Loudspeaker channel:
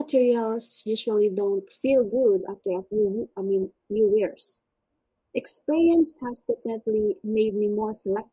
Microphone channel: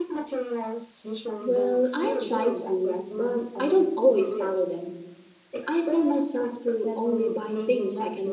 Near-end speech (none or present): present